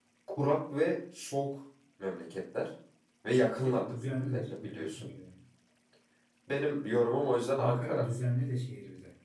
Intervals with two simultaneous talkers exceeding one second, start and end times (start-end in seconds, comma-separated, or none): 3.6-5.1